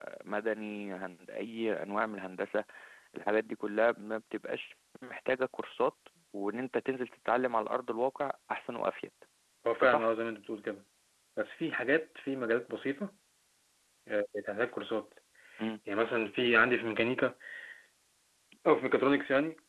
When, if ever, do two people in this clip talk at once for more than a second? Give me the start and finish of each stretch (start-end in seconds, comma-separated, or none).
none